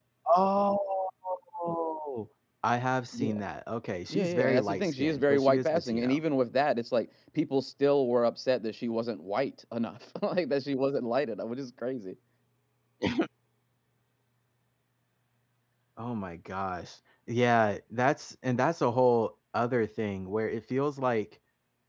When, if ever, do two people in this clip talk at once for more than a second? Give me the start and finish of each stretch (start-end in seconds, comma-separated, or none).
4.1-6.2